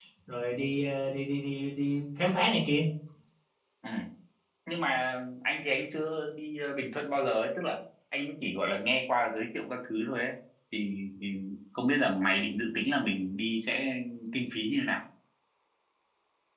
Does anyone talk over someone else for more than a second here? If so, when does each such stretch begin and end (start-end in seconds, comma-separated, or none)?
none